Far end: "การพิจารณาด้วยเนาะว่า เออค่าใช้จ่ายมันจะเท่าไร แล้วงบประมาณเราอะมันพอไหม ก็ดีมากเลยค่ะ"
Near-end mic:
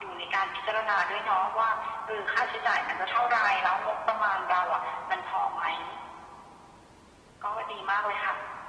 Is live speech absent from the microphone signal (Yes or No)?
Yes